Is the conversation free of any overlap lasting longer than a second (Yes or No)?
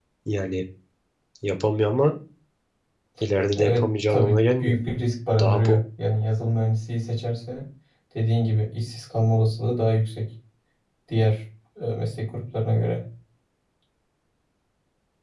No